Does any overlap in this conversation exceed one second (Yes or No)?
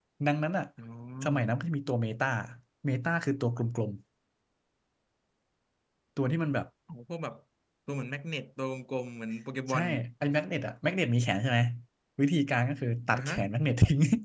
No